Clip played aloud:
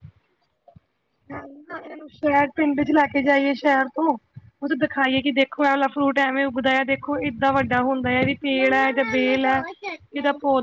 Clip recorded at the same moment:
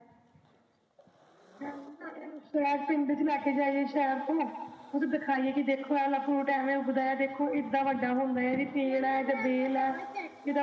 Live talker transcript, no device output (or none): none